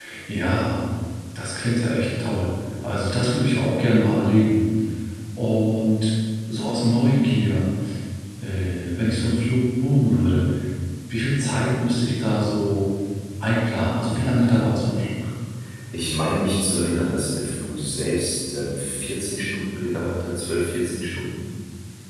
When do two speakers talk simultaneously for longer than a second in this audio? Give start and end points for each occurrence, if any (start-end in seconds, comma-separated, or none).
none